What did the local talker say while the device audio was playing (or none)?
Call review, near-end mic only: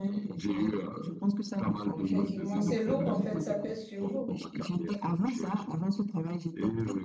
Effectivement, c'est lourd en fait, ça pèse sur vous.